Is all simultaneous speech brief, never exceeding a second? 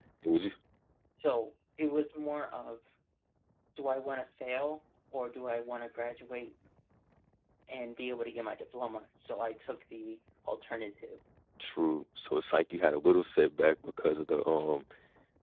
Yes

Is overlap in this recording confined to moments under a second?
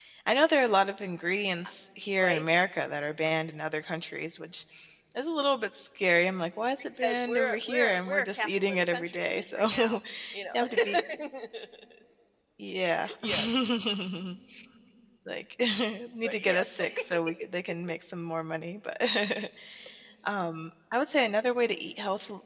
No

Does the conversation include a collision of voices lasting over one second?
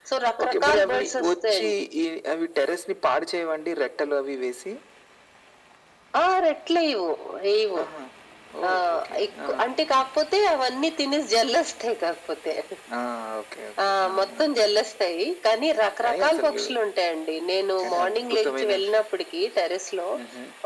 Yes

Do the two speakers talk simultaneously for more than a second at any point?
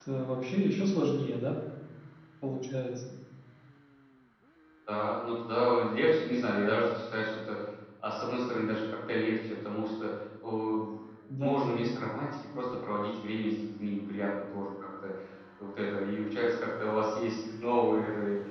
No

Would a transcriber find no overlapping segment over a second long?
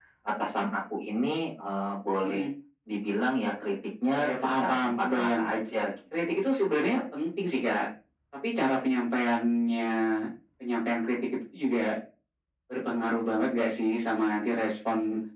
No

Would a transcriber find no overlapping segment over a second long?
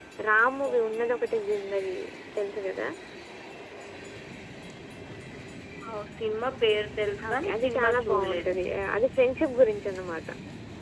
No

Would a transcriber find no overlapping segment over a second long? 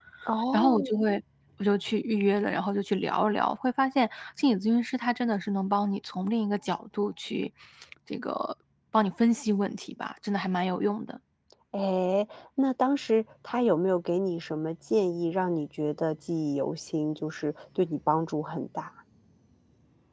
Yes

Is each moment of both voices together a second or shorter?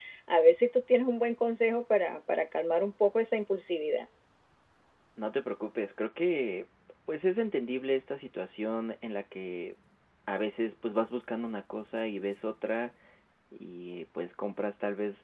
Yes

